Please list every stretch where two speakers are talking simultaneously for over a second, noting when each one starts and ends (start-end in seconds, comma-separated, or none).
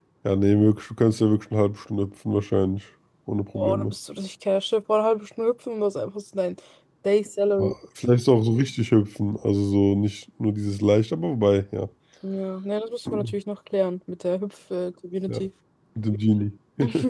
none